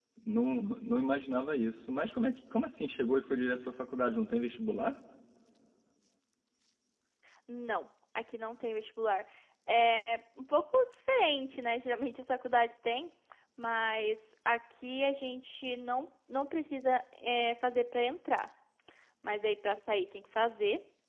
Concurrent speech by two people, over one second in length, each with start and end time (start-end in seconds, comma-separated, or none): none